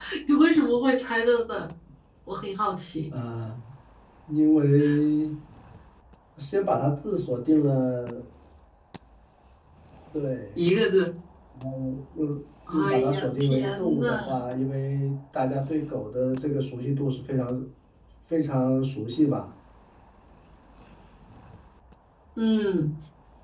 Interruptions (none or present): present